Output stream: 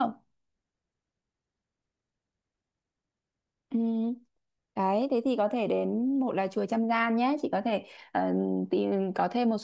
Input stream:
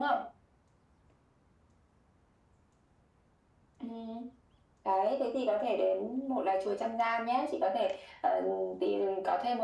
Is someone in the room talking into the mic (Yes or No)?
No